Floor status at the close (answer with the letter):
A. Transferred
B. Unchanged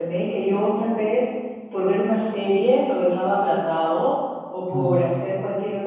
B